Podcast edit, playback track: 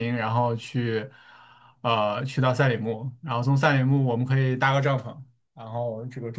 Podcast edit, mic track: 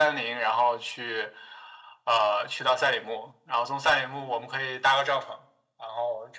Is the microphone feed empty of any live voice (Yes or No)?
Yes